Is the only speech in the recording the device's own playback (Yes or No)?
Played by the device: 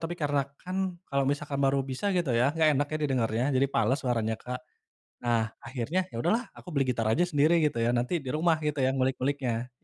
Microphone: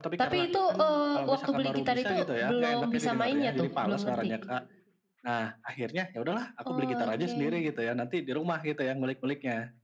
No